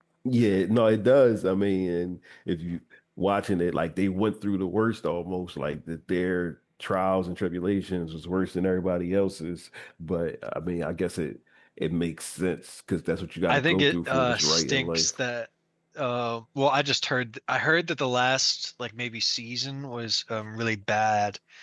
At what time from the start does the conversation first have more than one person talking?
13.5 s

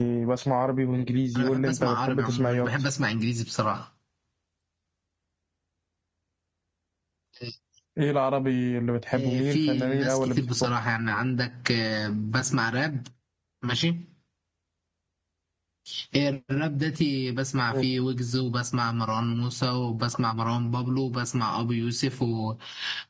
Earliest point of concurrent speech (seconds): 1.4 s

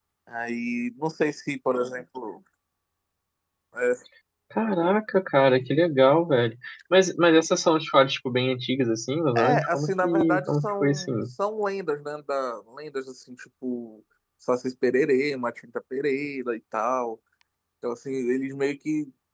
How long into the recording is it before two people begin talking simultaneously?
9.3 s

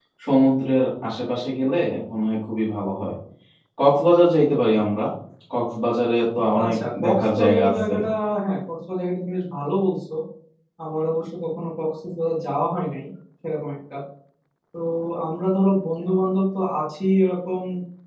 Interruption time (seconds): 6.6 s

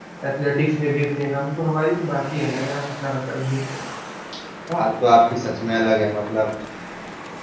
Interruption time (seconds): none

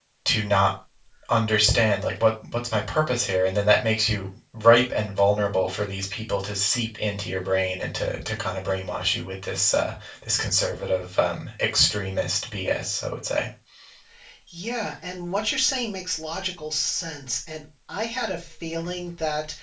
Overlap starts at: none

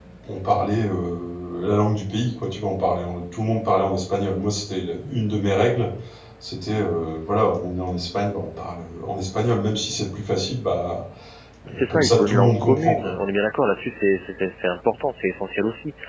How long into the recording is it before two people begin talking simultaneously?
11.8 s

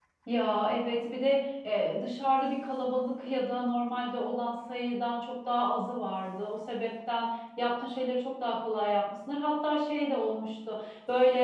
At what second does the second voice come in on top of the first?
none

